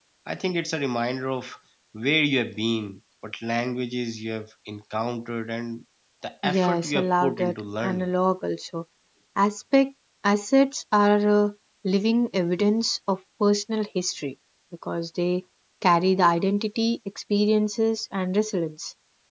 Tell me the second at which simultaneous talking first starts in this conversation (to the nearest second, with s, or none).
6 s